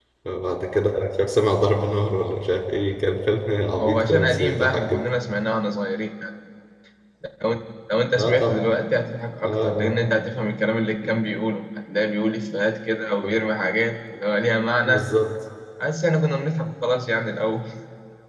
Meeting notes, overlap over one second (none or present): present